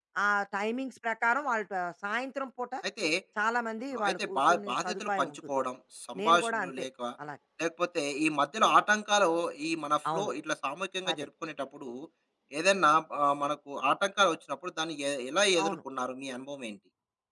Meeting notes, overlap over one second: present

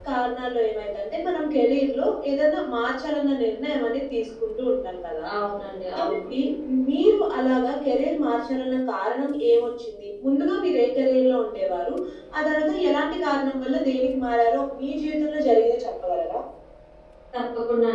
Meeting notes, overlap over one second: none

